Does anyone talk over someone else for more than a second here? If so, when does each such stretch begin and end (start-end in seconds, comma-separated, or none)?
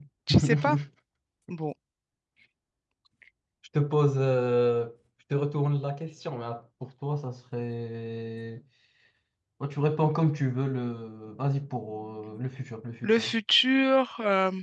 none